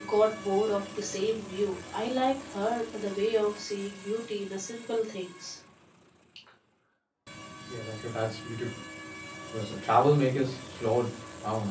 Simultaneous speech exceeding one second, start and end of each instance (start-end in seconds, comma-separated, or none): none